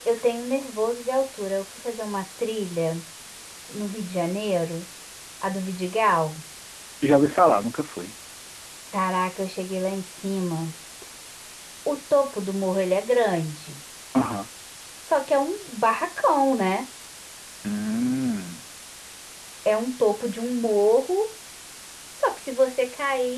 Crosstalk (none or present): none